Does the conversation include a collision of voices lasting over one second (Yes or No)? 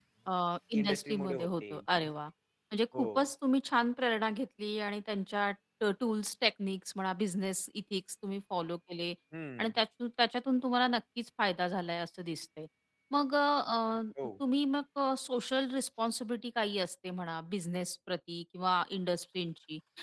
Yes